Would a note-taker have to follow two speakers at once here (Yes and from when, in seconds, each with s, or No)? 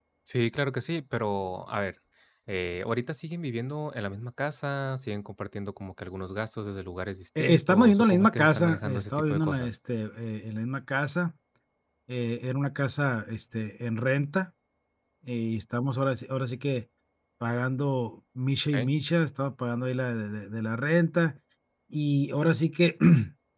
Yes, from 7.4 s